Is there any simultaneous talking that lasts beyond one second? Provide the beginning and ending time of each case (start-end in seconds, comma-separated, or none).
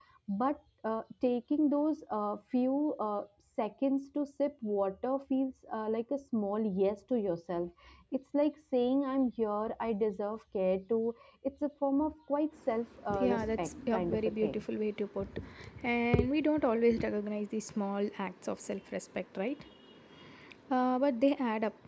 13.2-14.6